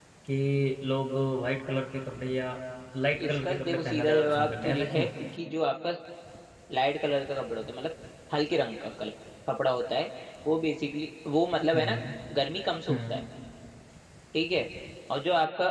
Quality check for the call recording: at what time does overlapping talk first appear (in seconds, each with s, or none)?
3.2 s